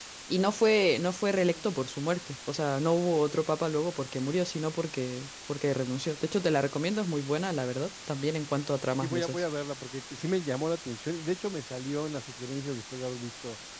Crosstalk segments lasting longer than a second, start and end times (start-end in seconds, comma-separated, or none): none